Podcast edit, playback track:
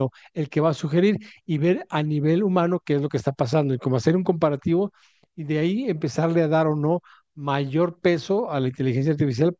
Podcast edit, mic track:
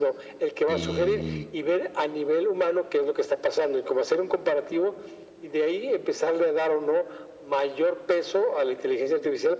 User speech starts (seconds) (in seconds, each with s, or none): 0.7 s